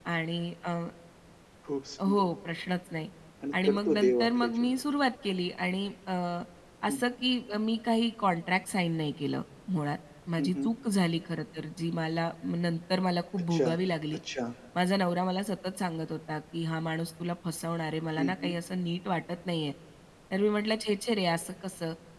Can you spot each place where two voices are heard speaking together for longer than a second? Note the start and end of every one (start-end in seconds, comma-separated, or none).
3.5-4.8